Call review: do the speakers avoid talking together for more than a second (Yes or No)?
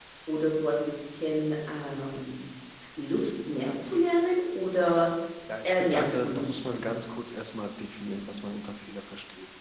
No